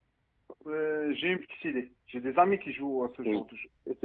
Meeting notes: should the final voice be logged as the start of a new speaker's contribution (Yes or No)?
Yes